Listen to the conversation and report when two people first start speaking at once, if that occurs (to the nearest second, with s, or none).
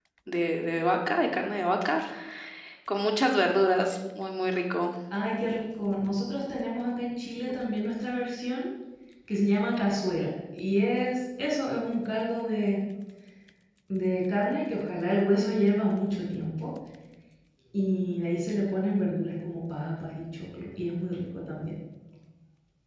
none